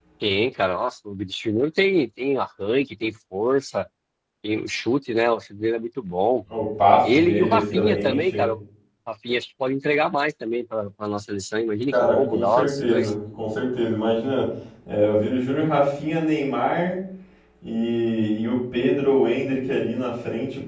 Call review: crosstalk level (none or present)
present